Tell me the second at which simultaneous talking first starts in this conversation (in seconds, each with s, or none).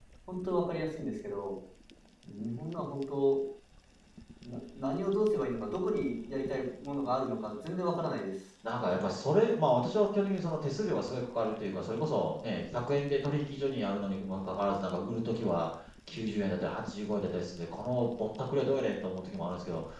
none